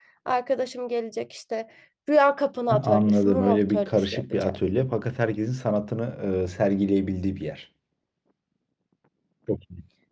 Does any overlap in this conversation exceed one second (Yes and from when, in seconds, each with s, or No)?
Yes, from 2.7 s